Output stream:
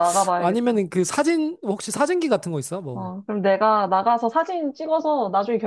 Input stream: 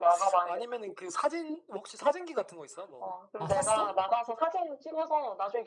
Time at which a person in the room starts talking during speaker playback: 3.4 s

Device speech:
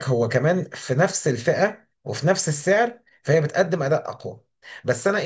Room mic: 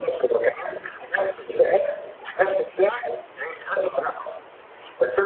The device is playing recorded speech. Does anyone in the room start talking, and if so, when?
none

